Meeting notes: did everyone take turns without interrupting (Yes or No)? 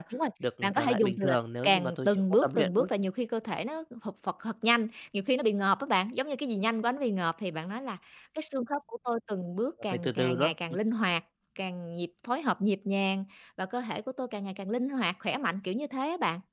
No